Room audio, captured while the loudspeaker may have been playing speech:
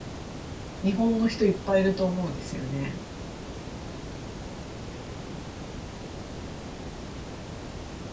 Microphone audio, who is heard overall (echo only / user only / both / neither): user only